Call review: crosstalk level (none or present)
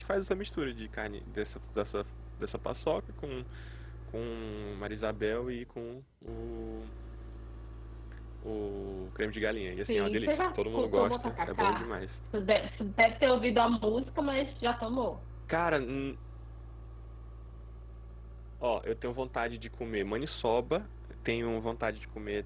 present